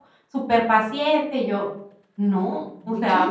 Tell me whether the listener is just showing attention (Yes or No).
Yes